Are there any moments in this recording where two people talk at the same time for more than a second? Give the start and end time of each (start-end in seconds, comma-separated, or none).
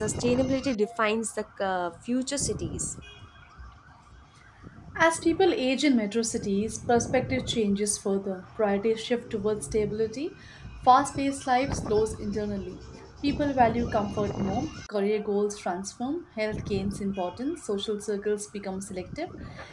none